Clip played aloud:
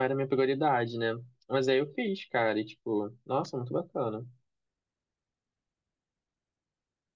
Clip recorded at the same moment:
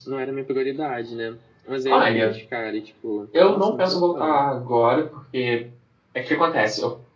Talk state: both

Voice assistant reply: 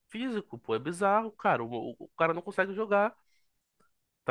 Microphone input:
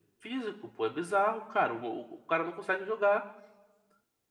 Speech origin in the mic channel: echo only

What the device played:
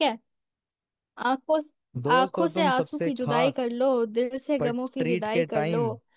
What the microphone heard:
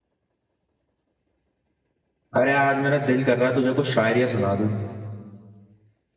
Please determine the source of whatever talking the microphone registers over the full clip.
user only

